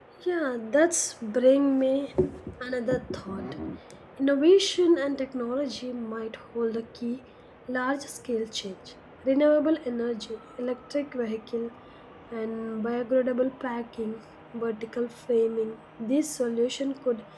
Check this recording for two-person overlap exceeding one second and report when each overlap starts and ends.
none

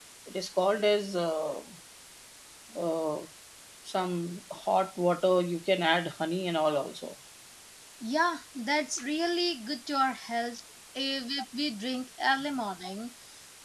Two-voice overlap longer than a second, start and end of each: none

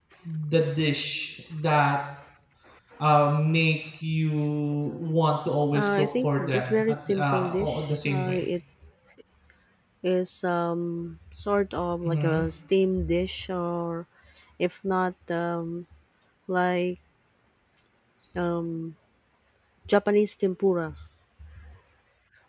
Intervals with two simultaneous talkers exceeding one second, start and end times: 5.7-8.4

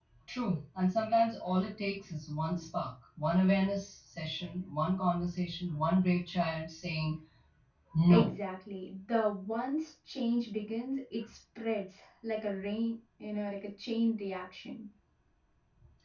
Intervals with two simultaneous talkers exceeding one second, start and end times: none

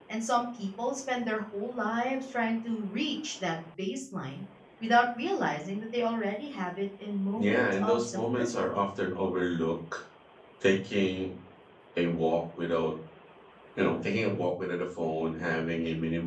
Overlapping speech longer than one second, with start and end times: 7.4-8.8

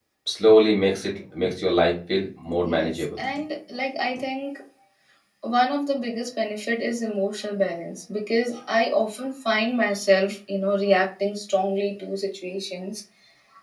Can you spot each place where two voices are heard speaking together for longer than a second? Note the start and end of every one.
none

